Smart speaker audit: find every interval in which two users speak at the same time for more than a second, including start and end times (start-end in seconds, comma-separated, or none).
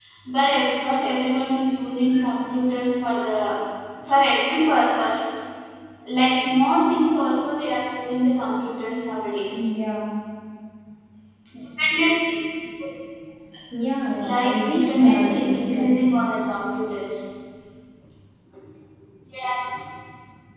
14.2-15.9